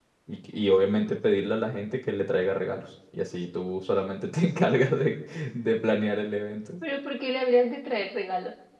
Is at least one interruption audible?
No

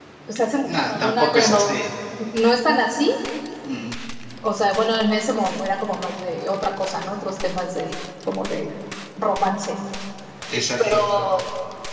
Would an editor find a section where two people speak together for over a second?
Yes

